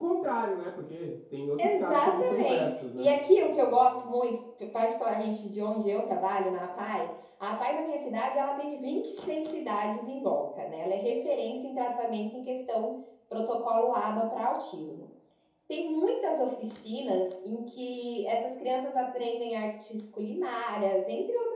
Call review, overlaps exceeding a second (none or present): present